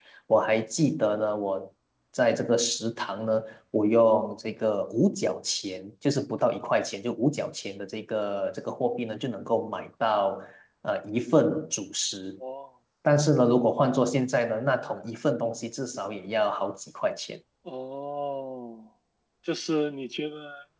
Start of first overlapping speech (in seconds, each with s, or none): none